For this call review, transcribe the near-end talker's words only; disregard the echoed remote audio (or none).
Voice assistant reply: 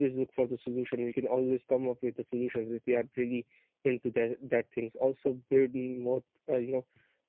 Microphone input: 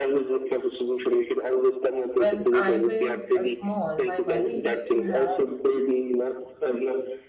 when i was uh, small my mother used to have